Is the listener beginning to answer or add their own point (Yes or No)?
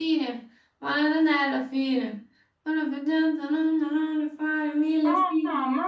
Yes